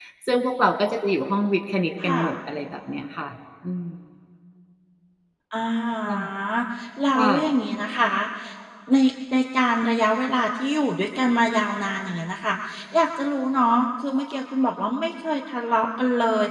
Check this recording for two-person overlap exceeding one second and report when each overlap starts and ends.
none

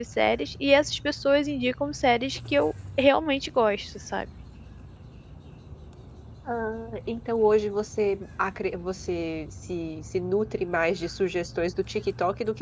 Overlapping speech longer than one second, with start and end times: none

